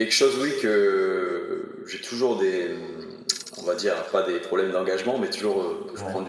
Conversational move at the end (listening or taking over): listening